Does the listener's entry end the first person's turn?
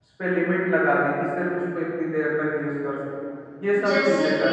Yes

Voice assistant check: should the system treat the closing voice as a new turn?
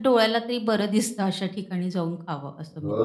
Yes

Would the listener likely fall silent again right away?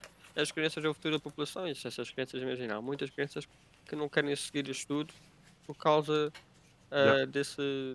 Yes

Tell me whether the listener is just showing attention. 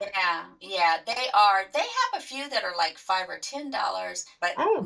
Yes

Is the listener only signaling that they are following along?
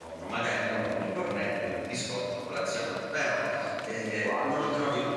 Yes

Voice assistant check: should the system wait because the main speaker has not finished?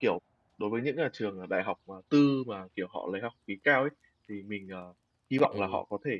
Yes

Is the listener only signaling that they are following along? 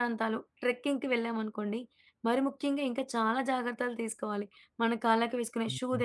Yes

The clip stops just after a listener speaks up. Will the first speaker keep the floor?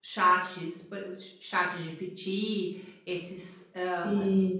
Yes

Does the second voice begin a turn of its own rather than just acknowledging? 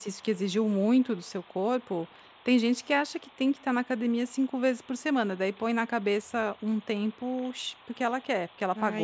Yes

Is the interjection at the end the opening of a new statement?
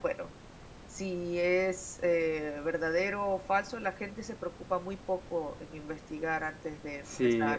Yes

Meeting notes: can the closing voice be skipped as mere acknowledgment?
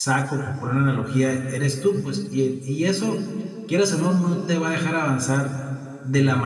Yes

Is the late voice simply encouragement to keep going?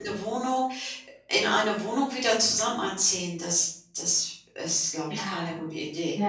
No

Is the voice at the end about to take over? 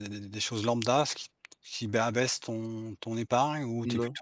No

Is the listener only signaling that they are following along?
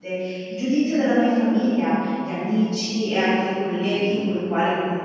Yes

